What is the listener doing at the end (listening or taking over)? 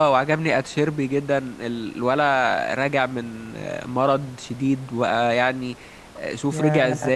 listening